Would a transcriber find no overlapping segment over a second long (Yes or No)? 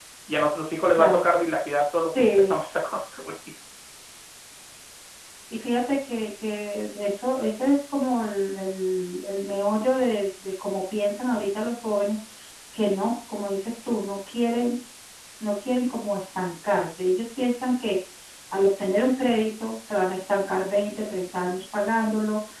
Yes